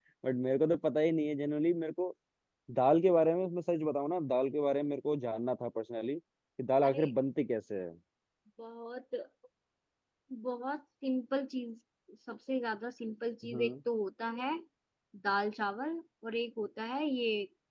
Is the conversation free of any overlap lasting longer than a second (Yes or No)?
Yes